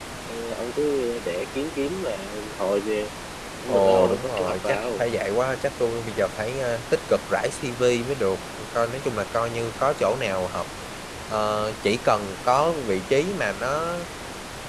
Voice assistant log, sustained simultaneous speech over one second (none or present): present